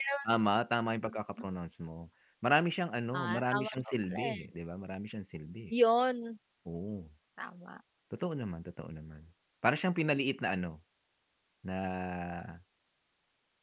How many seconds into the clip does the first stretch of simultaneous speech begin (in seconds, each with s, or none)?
3.1 s